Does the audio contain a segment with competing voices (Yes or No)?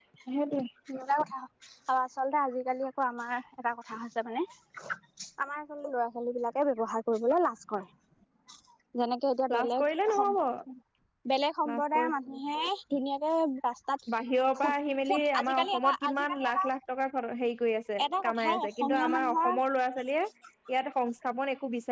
Yes